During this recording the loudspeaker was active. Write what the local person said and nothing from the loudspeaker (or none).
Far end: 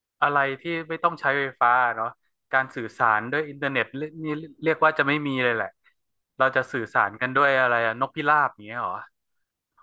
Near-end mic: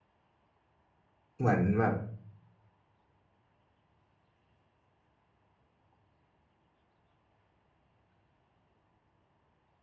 เหมือนแบบ